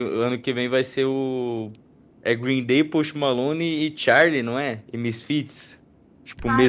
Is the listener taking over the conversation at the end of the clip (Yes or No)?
Yes